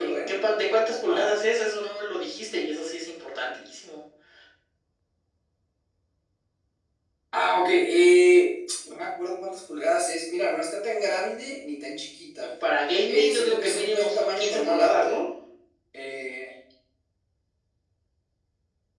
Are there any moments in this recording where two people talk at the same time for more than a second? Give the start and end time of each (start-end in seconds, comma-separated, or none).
13.1-15.0